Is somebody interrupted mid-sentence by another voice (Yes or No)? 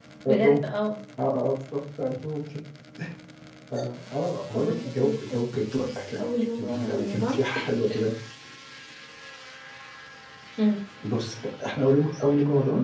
Yes